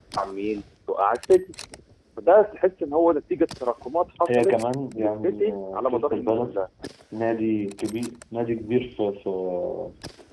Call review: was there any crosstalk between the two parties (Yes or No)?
Yes